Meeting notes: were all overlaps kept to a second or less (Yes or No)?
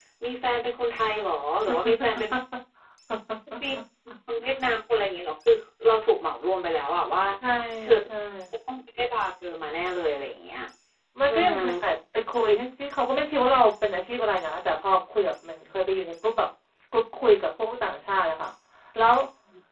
Yes